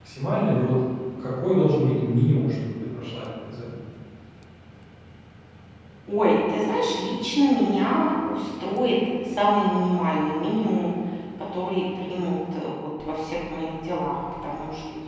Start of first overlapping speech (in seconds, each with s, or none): none